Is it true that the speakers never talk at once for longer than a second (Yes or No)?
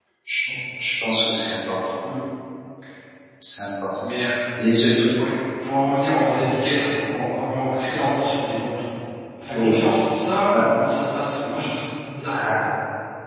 Yes